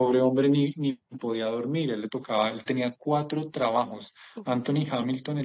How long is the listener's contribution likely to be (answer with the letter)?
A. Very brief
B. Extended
A